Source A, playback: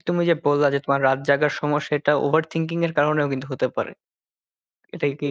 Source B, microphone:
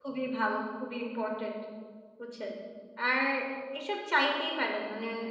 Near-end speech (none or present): present